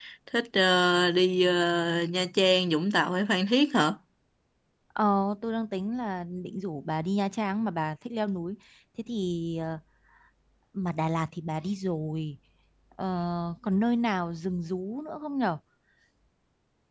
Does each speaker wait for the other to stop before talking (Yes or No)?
Yes